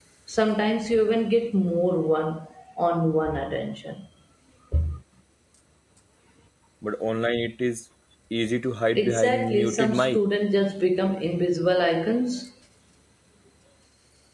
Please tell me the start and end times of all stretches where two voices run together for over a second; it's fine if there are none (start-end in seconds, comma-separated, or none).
9.0-10.2